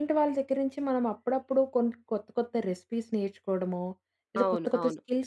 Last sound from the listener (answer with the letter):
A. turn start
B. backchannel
B